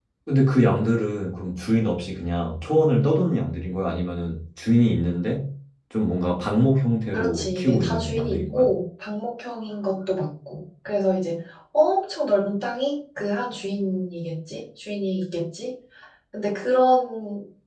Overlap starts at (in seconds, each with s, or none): 7.1 s